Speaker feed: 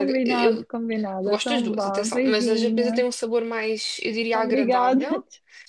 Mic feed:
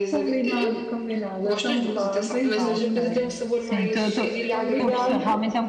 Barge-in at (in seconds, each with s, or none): 2.6 s